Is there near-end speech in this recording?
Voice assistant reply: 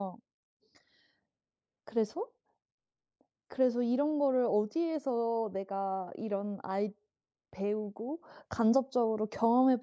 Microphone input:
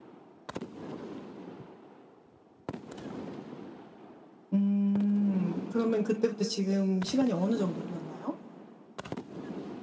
Yes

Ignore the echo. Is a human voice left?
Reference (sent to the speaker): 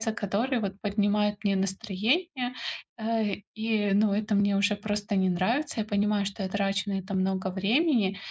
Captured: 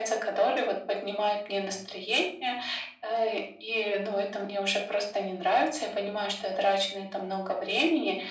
No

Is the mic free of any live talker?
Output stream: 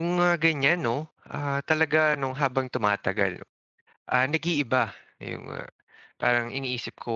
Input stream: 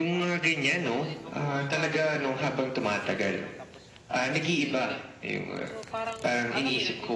No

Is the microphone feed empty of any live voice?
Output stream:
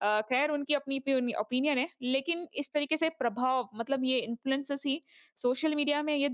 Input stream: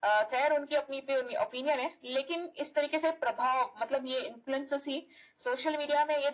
Yes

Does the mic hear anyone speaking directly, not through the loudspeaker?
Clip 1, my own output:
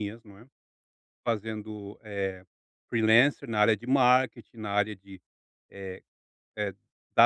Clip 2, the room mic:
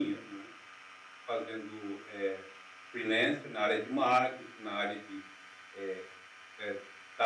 No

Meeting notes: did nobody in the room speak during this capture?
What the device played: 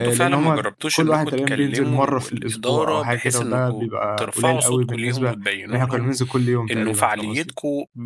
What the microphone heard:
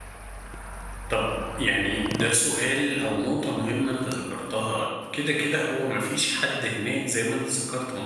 No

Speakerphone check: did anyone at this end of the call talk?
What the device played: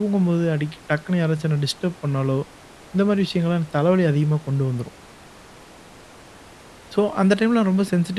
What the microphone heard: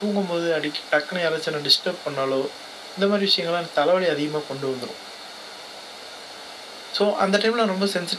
No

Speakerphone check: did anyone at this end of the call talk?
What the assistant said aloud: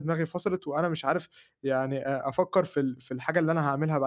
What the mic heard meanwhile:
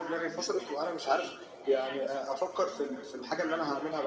Yes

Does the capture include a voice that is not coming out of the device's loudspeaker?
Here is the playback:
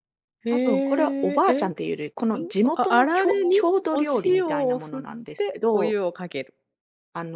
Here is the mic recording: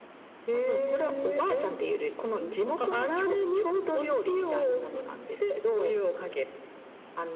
No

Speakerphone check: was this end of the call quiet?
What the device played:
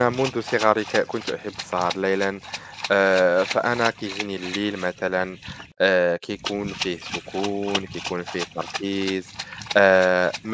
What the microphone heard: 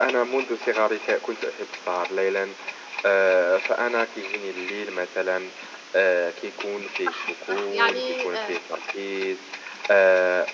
No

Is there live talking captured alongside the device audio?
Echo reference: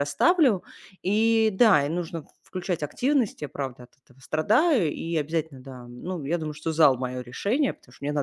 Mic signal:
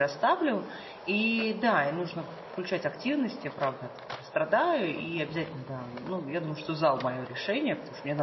No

